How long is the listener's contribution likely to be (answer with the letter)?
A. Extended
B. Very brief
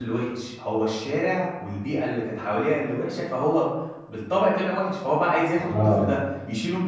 B